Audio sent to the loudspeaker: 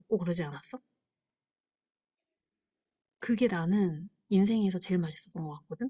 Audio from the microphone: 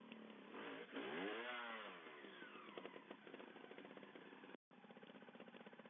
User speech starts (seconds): none

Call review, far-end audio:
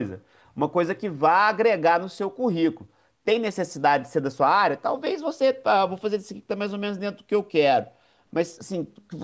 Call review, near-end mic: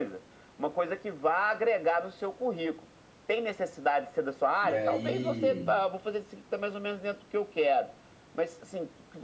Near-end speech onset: 4.6 s

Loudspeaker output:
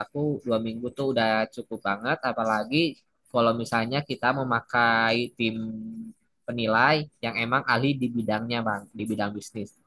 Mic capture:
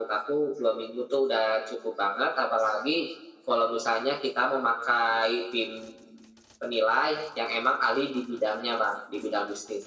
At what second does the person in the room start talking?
none

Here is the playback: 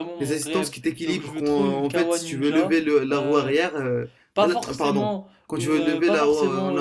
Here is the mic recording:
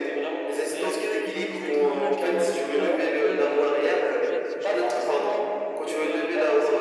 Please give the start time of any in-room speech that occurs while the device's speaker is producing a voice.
0.8 s

